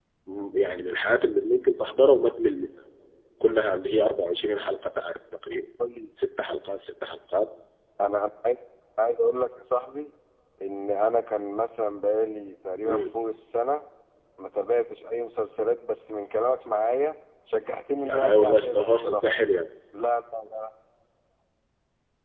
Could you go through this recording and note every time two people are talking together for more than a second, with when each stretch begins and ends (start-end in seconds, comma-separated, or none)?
18.1-19.4